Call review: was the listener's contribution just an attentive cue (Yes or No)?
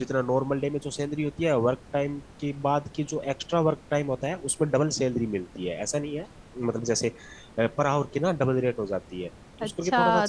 No